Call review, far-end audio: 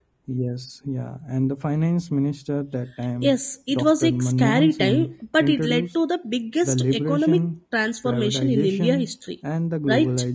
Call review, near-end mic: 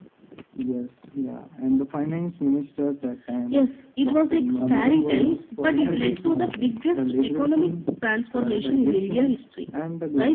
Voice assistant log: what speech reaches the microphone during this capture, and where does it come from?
both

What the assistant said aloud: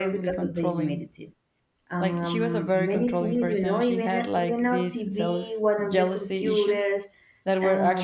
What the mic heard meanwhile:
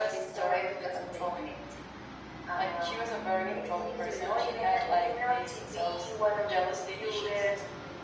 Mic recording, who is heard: echo only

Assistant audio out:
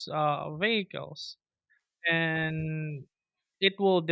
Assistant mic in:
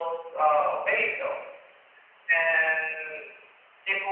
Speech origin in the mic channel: echo only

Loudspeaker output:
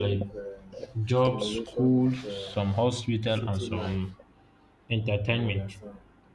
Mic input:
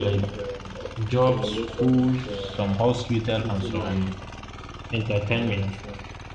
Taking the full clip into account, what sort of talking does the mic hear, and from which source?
echo only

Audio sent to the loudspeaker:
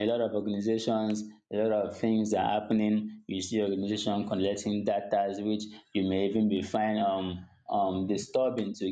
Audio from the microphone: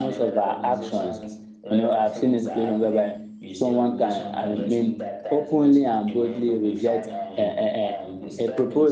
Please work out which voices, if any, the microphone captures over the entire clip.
both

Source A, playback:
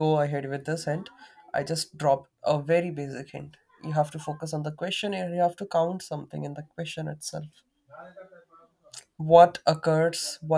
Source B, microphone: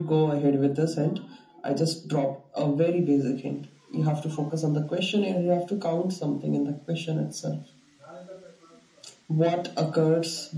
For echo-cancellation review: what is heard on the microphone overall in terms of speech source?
echo only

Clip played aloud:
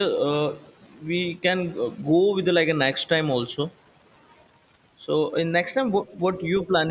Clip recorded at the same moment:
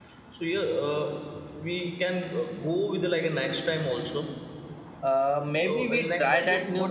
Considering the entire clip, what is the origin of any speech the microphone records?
both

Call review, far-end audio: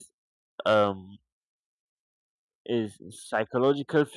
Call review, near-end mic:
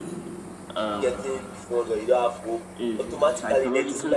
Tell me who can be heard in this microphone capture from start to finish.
both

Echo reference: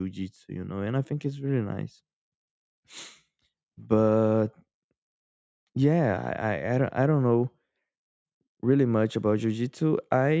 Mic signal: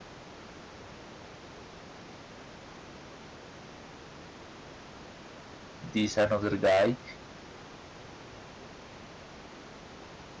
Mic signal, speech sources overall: user only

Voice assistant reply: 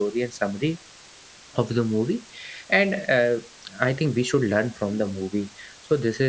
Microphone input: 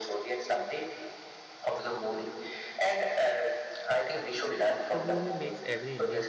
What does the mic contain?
both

